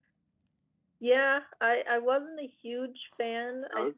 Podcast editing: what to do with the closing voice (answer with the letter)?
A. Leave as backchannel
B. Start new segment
A